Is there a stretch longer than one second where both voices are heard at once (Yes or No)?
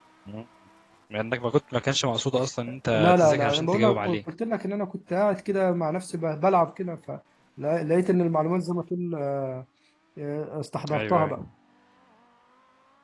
Yes